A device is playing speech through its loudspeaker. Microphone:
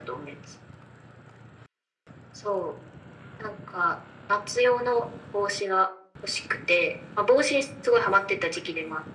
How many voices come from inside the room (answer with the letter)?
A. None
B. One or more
A